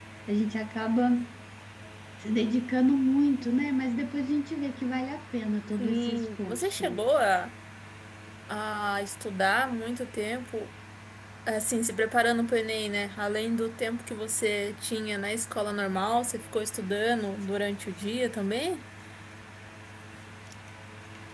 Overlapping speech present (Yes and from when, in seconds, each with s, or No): Yes, from 5.8 s